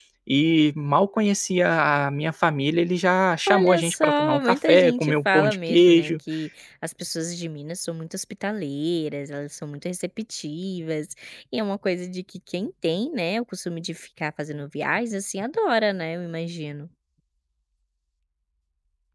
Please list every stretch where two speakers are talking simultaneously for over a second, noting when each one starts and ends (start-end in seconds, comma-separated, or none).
3.5-6.1